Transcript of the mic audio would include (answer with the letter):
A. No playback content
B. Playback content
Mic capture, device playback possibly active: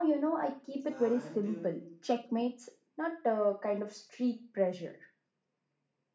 B